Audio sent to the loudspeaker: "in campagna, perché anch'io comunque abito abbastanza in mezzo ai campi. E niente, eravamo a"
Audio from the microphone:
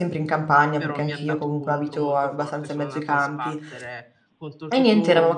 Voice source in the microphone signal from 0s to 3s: both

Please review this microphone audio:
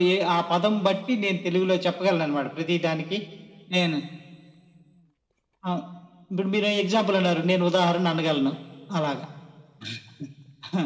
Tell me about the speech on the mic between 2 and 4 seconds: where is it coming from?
echo only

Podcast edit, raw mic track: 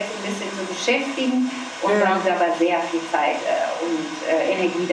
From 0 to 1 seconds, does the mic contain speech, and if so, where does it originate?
echo only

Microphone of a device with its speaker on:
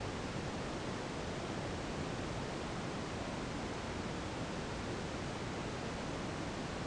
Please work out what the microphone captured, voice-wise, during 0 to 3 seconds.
neither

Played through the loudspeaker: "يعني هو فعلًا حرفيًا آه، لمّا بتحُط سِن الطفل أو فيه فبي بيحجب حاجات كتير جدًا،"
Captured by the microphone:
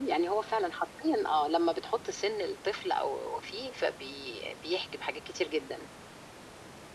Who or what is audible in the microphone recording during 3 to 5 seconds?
echo only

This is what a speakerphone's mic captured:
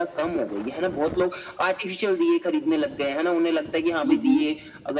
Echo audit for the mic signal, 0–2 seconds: echo only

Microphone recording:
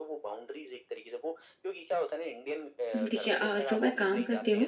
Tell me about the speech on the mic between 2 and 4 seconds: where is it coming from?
both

